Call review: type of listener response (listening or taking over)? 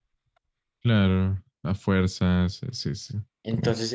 taking over